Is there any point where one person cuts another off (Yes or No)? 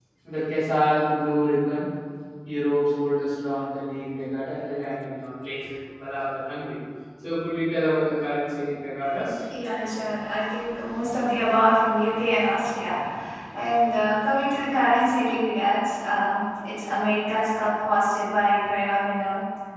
No